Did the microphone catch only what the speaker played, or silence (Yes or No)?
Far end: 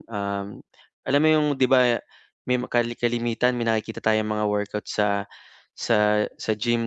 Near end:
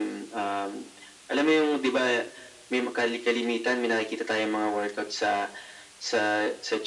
Yes